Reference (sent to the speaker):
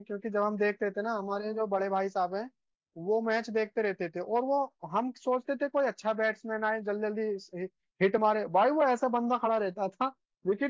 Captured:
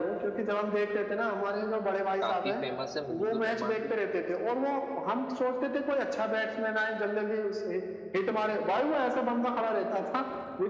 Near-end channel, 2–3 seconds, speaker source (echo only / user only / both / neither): both